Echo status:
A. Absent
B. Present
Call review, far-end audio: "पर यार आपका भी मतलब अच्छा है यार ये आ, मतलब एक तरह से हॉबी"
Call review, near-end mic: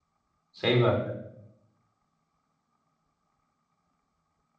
A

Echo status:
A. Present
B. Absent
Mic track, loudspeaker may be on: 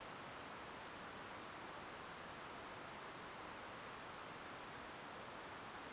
B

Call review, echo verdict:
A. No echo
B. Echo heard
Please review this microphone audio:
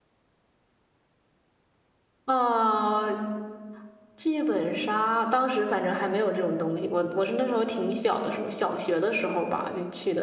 A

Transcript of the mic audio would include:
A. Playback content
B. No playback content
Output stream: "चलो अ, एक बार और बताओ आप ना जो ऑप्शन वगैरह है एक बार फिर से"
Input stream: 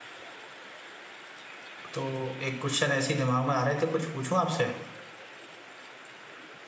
B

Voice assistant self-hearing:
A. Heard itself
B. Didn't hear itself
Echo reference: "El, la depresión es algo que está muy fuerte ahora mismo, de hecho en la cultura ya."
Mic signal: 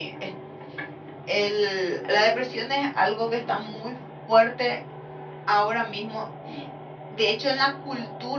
A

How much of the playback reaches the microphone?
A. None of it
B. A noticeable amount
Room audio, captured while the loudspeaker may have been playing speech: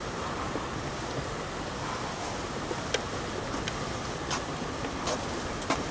A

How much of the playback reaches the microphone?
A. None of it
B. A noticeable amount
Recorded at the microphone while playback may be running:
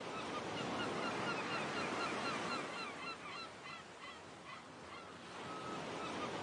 A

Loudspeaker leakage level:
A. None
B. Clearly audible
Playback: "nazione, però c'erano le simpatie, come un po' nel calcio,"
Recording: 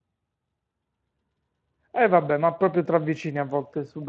A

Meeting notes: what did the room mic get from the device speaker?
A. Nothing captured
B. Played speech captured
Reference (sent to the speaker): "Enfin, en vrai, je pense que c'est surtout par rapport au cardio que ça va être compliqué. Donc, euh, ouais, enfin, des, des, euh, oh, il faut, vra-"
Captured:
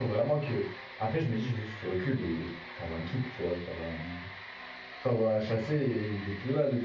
A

